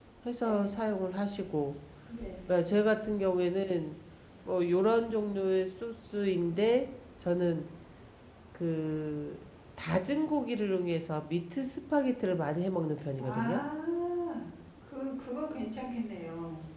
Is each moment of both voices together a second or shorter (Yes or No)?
Yes